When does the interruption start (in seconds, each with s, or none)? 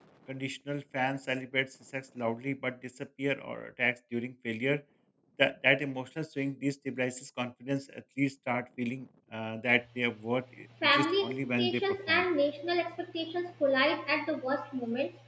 10.8 s